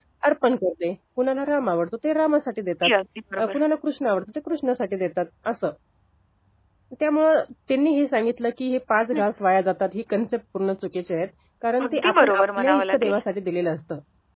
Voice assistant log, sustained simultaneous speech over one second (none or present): present